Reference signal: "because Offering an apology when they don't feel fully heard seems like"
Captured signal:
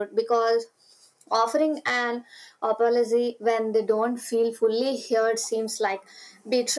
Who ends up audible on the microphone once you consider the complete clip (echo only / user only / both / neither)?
echo only